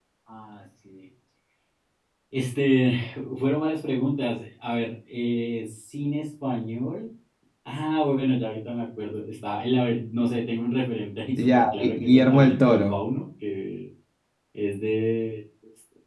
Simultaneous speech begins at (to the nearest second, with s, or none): 11 s